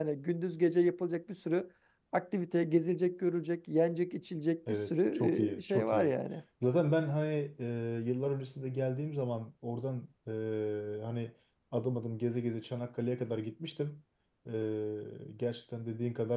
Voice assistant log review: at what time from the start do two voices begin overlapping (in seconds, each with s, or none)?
4.7 s